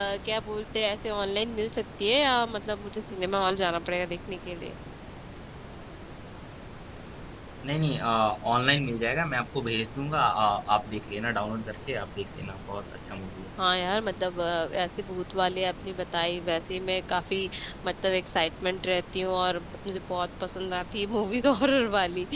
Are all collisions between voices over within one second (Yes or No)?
Yes